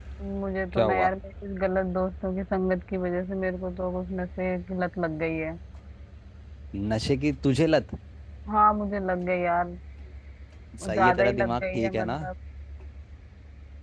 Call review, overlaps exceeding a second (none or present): present